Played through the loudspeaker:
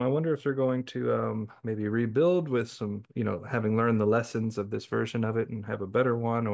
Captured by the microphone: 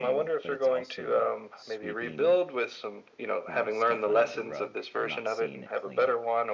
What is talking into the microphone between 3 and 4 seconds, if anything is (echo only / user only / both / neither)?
both